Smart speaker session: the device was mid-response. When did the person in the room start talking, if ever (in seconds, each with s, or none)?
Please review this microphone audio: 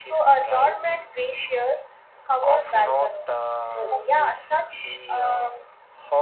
none